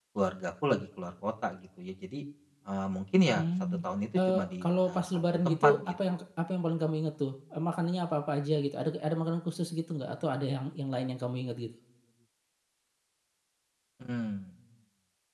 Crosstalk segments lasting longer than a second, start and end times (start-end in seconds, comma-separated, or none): 4.3-5.9